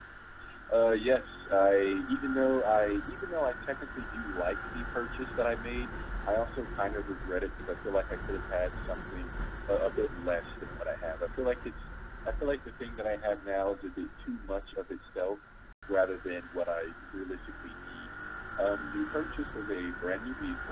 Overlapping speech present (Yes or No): No